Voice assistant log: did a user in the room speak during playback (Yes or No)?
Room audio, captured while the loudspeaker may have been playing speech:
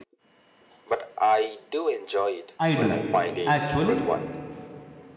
Yes